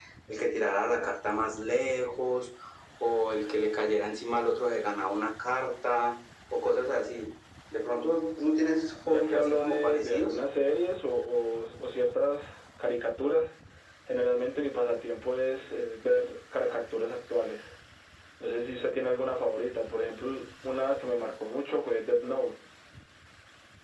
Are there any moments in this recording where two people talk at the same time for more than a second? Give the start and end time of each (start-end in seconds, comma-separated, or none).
9.1-10.4